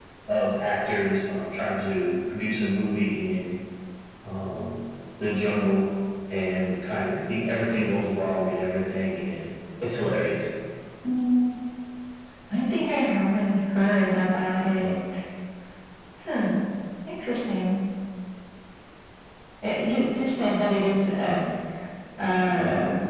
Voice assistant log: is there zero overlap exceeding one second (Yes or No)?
Yes